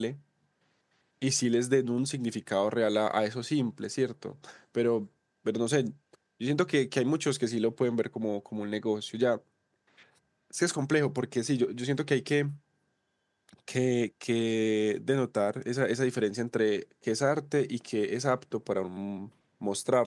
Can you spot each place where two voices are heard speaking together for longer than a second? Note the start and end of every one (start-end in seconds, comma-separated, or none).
none